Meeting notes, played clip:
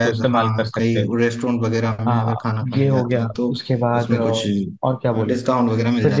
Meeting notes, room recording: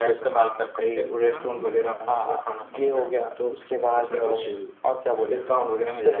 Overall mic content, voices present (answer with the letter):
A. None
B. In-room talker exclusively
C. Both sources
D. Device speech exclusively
C